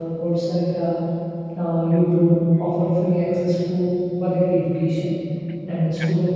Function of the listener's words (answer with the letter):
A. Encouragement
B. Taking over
A